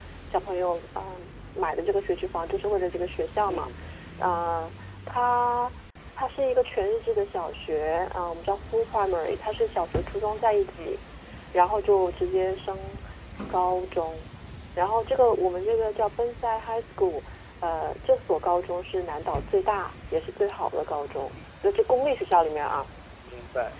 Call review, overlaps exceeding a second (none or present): none